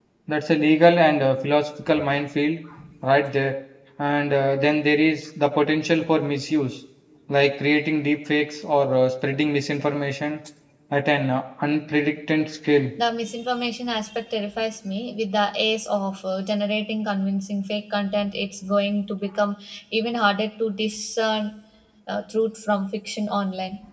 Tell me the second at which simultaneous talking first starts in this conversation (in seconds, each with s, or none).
none